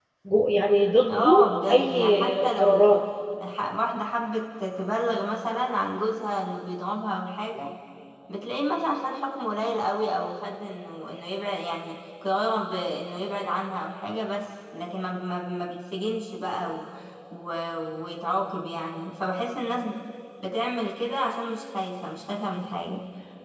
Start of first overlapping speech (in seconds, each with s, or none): 1.1 s